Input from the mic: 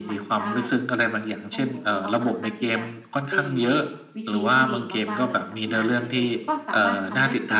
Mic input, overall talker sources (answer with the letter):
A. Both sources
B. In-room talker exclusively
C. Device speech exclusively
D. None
A